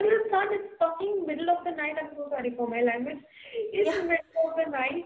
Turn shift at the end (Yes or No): No